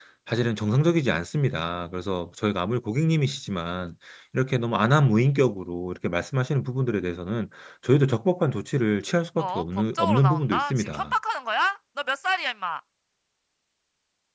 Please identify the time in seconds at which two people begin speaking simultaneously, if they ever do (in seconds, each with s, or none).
9.4 s